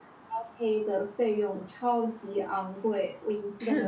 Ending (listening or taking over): taking over